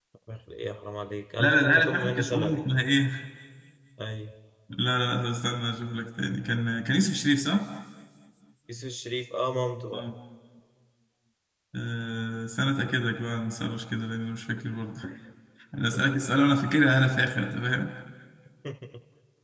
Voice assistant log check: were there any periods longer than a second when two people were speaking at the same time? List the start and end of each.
1.4-2.6

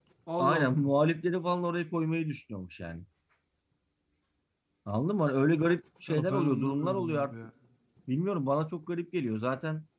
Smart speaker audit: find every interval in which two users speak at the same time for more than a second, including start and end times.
6.1-7.3

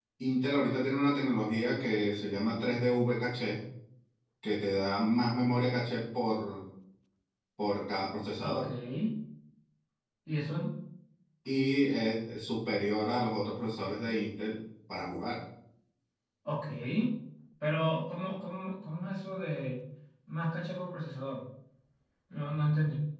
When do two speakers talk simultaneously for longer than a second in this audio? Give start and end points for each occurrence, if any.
none

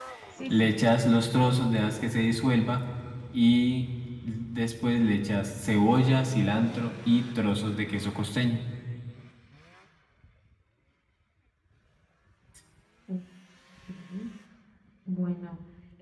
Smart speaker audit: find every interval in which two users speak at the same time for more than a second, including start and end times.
none

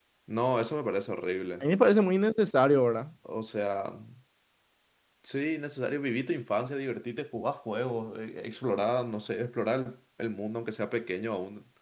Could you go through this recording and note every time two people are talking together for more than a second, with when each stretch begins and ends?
none

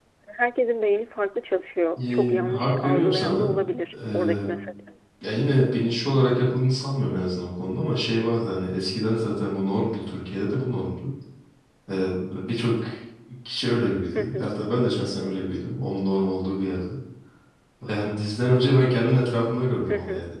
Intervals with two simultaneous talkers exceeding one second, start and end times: 2.0-3.6

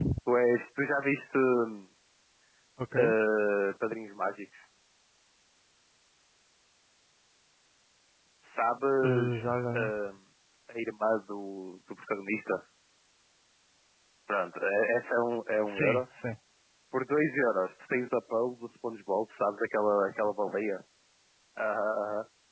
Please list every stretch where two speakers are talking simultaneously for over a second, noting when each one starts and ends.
none

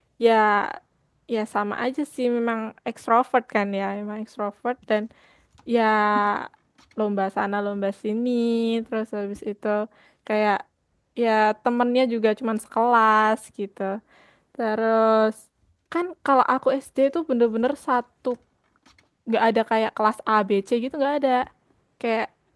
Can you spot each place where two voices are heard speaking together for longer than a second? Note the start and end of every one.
none

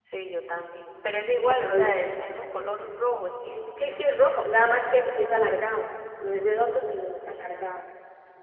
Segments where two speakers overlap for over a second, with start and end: 3.8-5.1, 6.6-7.8

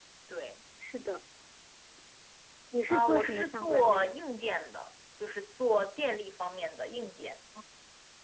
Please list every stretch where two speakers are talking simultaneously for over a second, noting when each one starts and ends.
2.9-4.2

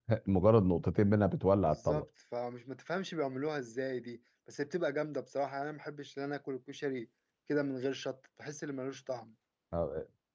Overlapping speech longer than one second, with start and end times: none

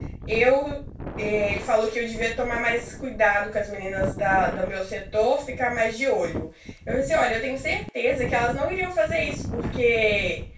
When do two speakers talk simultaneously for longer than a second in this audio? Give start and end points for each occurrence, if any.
none

